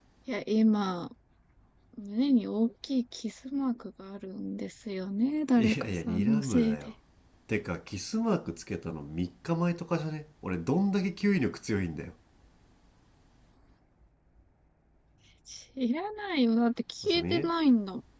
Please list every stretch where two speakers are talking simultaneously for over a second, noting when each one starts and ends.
5.6-6.9

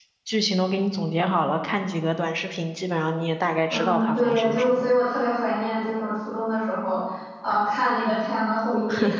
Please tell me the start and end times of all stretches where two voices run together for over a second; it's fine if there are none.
3.7-4.9

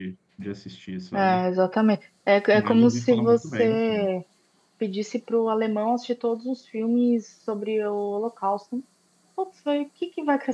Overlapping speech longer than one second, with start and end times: 2.5-4.1

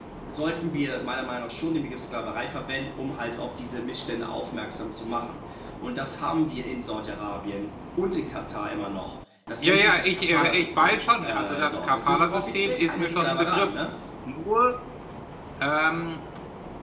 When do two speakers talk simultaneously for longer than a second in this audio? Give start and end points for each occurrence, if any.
9.6-13.7

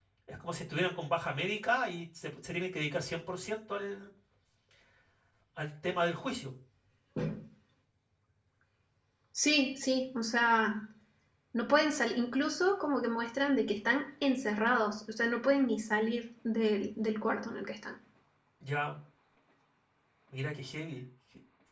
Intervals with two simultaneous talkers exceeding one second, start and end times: none

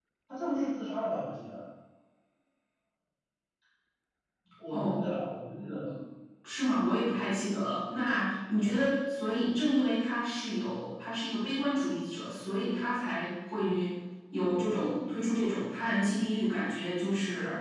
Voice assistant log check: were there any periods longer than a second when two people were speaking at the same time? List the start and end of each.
none

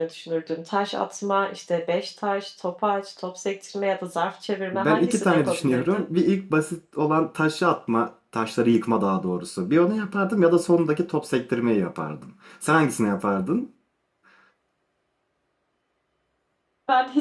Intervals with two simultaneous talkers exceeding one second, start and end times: 4.7-6.1

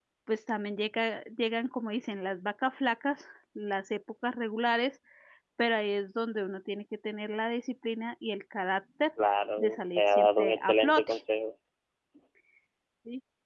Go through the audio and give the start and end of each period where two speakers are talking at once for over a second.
9.6-11.1

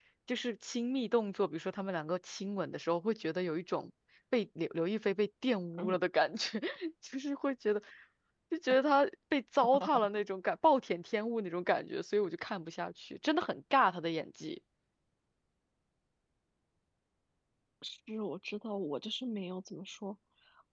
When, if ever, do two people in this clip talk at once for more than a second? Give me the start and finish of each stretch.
none

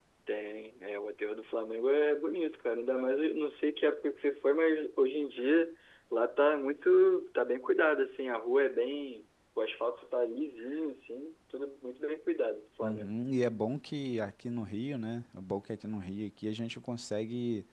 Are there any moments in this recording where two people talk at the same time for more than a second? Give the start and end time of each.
none

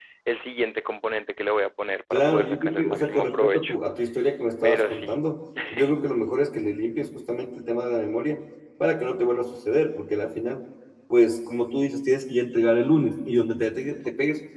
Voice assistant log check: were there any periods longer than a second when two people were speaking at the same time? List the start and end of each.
2.1-3.7

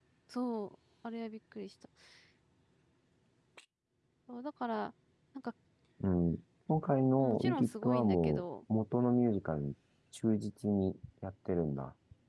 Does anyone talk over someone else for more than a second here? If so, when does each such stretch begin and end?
7.2-8.4

